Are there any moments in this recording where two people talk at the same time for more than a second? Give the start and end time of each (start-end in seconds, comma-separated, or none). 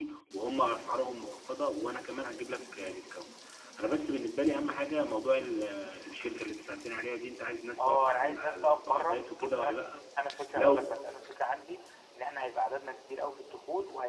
7.8-9.9